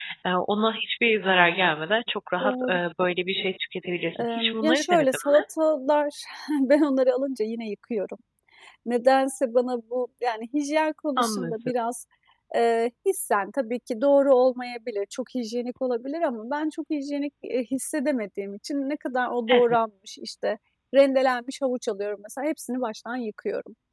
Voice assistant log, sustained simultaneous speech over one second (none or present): present